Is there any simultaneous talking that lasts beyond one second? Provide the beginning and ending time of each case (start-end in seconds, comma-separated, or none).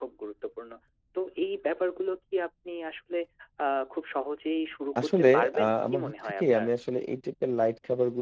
5.0-6.7